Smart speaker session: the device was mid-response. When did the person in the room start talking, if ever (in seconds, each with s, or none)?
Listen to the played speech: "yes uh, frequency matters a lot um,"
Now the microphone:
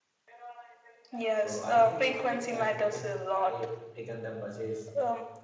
1.3 s